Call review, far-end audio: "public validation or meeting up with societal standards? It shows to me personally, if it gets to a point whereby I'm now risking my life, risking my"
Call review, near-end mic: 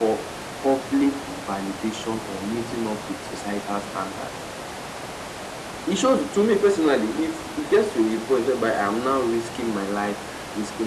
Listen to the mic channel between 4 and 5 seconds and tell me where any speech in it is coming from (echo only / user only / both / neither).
echo only